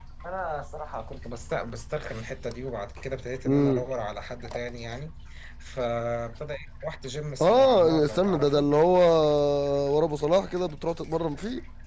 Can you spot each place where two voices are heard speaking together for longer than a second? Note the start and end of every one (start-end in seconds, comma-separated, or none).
7.4-8.7